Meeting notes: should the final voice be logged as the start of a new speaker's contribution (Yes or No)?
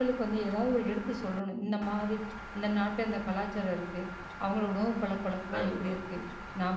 No